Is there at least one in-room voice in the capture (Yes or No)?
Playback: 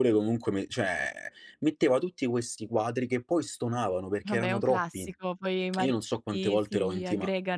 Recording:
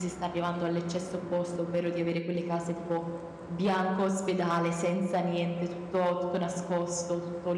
Yes